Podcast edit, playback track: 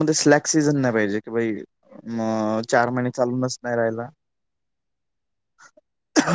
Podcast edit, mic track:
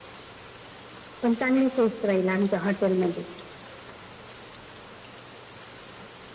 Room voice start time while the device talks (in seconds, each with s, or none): 1.2 s